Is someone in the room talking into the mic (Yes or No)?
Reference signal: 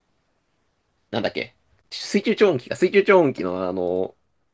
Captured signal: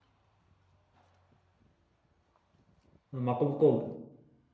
Yes